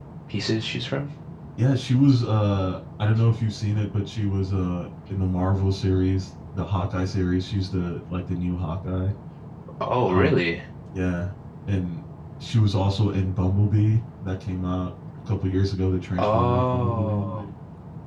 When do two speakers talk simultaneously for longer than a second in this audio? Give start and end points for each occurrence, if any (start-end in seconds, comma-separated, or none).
16.2-17.4